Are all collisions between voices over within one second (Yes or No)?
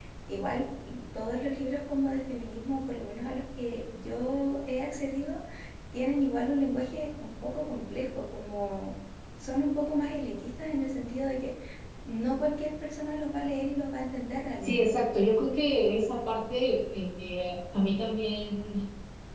Yes